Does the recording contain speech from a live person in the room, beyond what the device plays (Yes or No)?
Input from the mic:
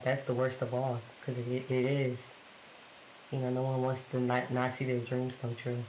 Yes